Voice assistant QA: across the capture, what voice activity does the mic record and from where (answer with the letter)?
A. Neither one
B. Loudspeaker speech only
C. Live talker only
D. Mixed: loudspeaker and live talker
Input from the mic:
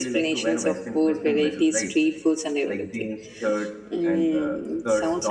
D